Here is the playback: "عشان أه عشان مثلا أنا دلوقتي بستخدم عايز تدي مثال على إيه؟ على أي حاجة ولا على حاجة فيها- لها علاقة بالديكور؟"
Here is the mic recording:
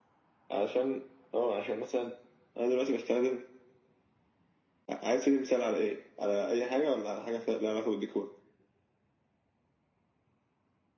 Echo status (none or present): present